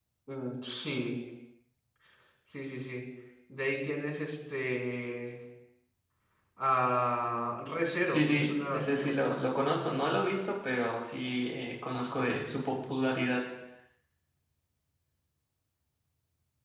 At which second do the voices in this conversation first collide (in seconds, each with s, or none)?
8.1 s